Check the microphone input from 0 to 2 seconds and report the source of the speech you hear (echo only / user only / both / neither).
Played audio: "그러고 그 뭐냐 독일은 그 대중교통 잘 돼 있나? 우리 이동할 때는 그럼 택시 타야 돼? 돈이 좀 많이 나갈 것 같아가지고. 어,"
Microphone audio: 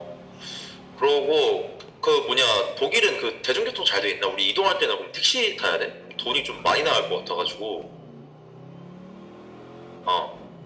echo only